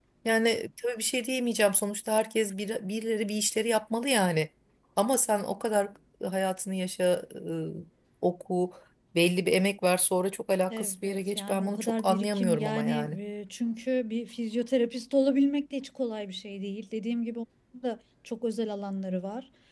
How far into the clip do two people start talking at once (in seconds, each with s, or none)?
10.7 s